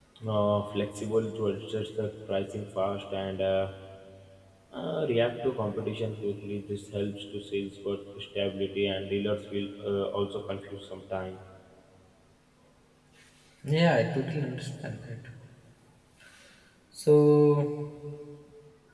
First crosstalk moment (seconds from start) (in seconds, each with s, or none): none